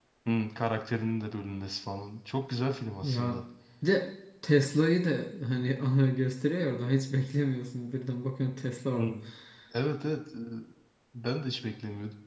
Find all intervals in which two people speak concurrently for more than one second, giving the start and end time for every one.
none

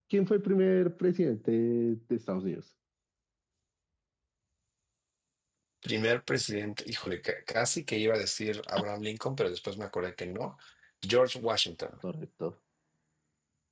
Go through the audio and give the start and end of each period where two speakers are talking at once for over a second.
none

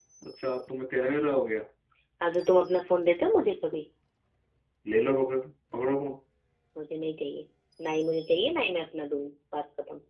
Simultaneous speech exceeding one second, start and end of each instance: none

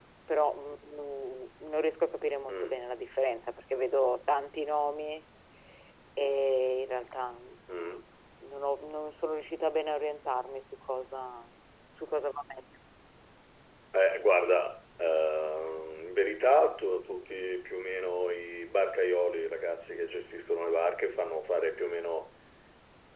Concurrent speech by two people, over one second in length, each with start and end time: none

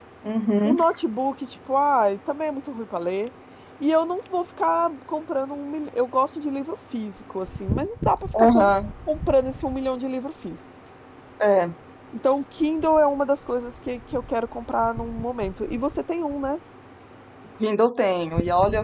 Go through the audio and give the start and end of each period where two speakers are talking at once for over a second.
none

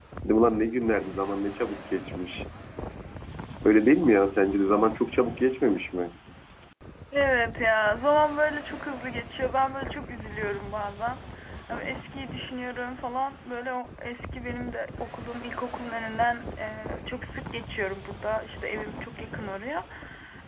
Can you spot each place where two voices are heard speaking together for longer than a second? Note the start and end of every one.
none

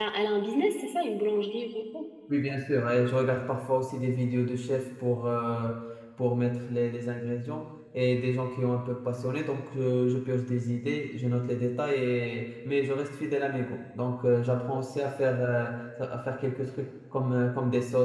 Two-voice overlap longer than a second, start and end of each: none

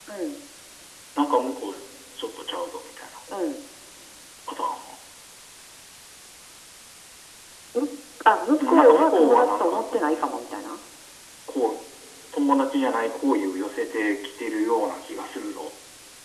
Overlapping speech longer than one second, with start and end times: 8.6-10.1

